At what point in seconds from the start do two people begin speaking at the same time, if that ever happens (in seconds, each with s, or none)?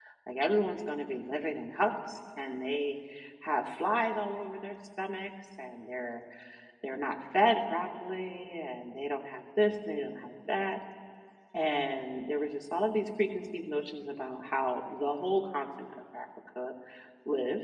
none